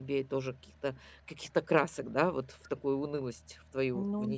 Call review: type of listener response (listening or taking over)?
taking over